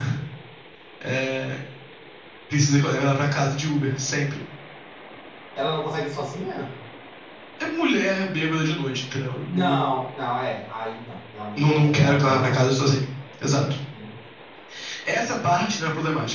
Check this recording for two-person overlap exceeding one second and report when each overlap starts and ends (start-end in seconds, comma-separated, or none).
11.6-12.9